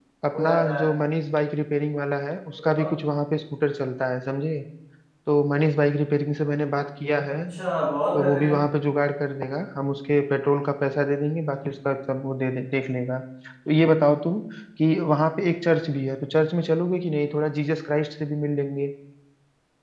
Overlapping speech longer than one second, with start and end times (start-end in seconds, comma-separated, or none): none